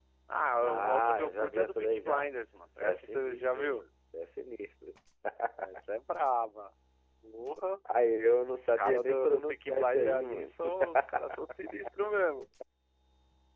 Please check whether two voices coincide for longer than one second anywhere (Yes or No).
Yes